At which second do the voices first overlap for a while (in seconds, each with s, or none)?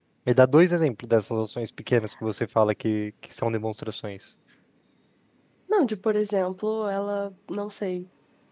none